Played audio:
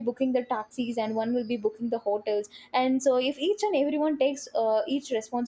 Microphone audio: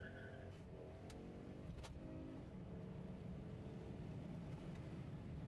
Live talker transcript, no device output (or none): none